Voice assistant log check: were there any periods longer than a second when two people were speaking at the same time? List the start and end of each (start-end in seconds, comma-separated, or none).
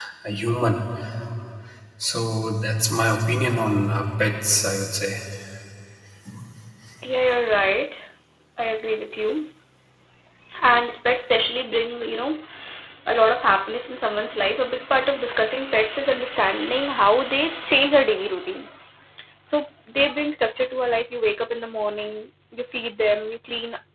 none